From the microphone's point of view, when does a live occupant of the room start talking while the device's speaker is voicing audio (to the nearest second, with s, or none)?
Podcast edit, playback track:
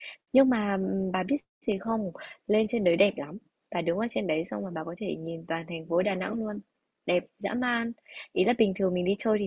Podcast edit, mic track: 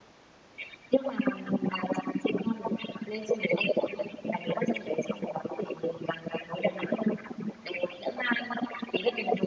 none